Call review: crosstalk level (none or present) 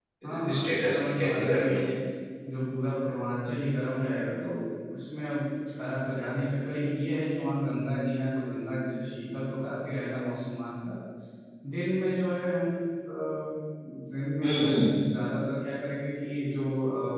present